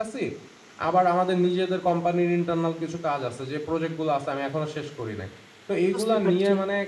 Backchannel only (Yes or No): Yes